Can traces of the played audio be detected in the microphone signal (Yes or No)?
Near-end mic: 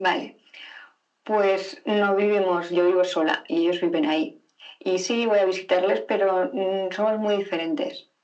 Yes